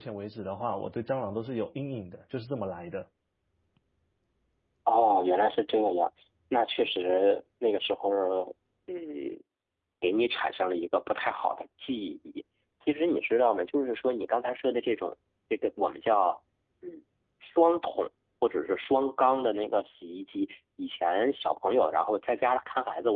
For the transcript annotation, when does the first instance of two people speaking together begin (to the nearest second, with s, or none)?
none